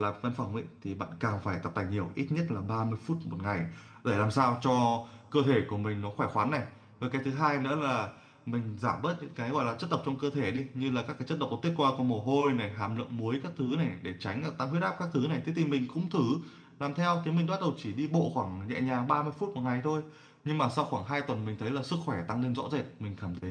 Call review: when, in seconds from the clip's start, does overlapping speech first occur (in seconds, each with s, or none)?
none